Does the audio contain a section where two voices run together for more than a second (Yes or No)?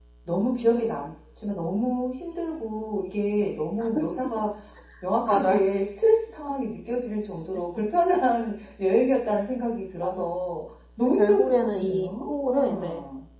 Yes